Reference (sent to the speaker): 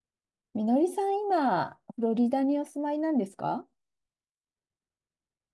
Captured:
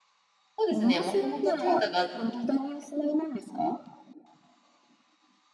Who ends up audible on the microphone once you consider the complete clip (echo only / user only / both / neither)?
both